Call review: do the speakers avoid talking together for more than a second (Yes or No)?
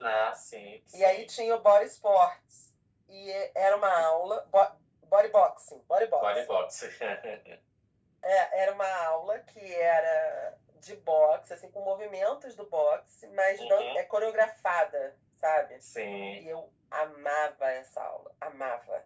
Yes